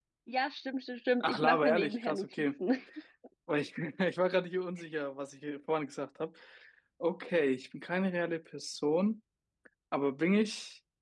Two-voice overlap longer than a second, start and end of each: 1.2-2.5

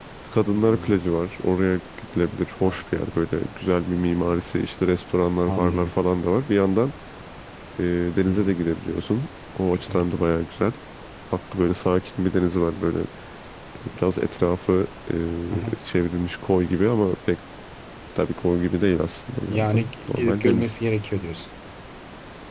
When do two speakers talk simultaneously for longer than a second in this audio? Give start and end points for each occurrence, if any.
19.5-20.8

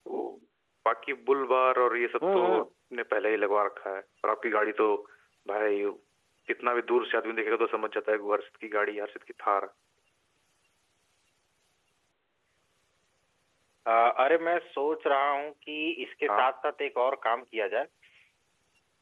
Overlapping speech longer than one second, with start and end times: none

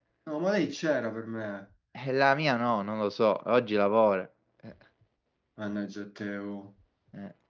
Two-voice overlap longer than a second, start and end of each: none

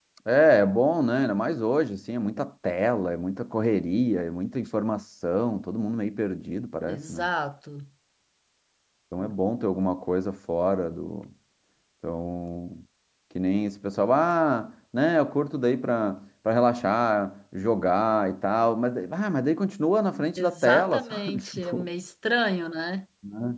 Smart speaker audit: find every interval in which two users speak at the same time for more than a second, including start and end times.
20.4-21.9

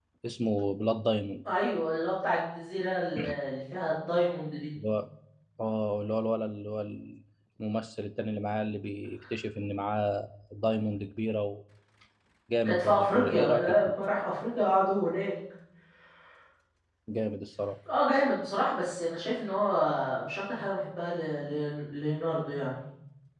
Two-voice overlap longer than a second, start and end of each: 12.7-13.9

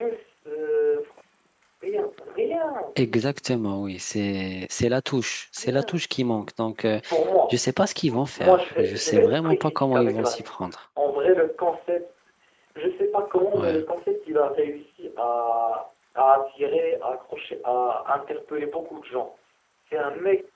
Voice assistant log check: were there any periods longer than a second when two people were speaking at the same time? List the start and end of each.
8.1-10.6

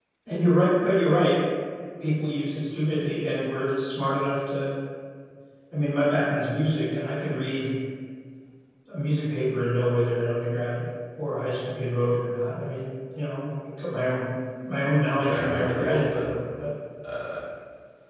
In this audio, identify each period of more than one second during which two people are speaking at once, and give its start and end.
15.2-16.4

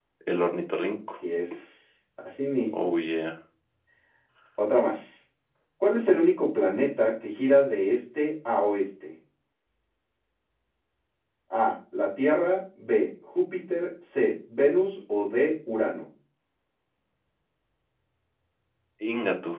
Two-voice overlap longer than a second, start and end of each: none

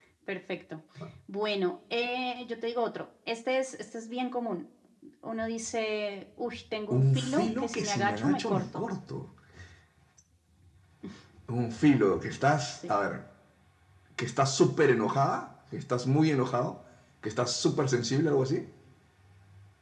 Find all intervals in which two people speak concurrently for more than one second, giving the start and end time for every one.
6.9-8.8

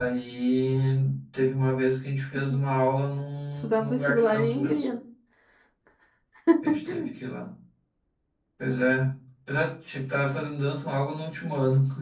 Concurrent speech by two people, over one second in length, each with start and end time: 3.6-4.8

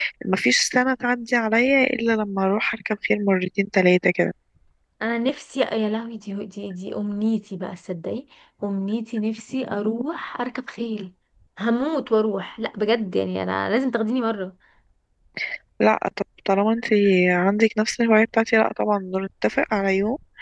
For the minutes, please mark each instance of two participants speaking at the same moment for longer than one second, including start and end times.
none

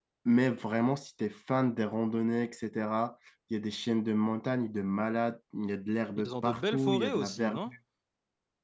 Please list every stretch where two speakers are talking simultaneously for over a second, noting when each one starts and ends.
6.2-7.7

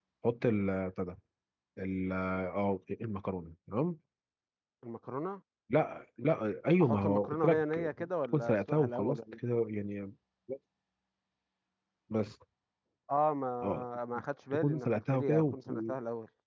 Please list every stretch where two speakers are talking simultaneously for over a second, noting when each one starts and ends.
6.8-9.4, 14.5-15.9

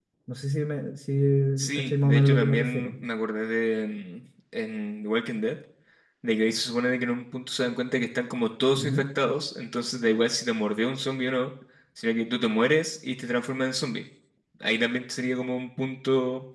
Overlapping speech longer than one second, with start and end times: 1.7-3.0

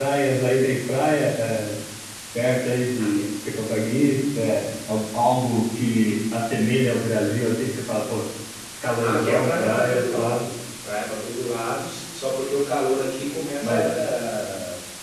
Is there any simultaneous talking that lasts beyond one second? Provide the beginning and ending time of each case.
9.0-10.4

